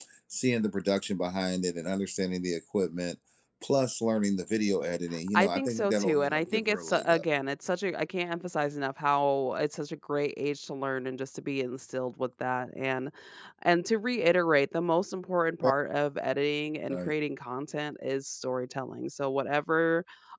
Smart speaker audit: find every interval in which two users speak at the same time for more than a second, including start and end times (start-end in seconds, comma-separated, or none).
5.3-7.2